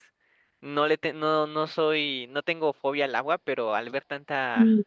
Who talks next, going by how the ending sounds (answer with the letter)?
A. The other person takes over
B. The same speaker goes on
B